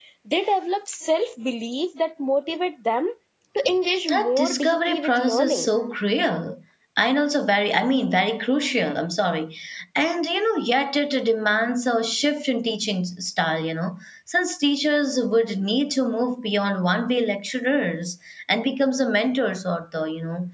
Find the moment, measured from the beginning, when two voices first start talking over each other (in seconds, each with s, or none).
4.1 s